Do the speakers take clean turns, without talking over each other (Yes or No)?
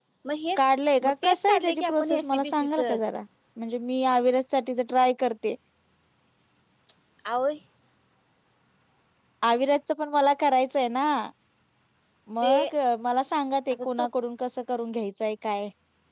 No